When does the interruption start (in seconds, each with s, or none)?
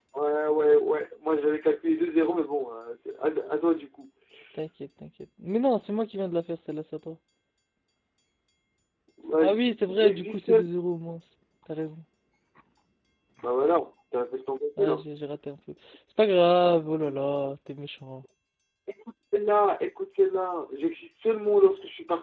9.4 s